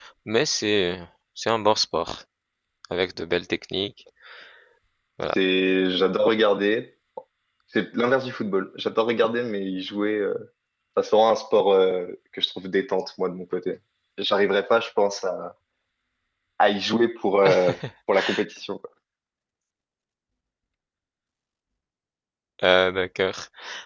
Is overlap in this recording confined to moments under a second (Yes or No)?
Yes